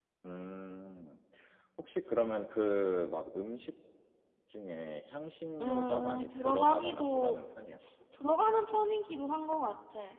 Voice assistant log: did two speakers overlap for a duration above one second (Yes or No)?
Yes